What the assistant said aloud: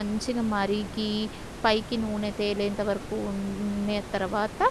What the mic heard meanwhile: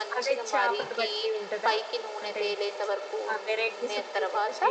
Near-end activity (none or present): present